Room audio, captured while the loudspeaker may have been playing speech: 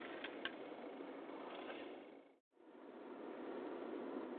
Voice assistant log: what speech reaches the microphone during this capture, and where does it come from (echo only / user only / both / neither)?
neither